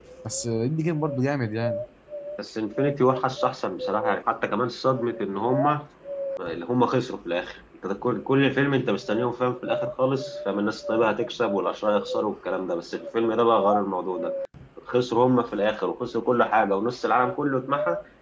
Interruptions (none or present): none